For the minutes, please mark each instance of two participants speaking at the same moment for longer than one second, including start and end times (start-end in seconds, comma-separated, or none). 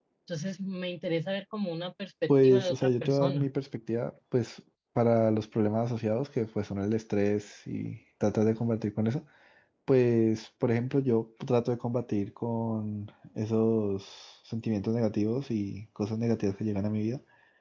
2.3-3.5